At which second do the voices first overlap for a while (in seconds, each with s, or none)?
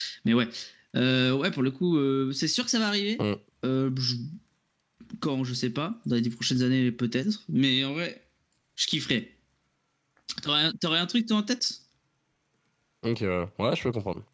none